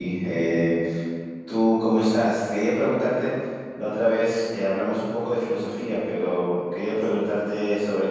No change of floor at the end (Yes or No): Yes